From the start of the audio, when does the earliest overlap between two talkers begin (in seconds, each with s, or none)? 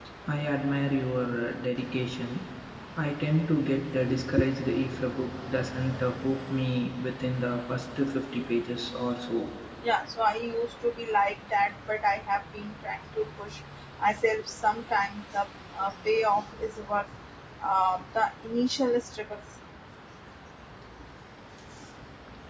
none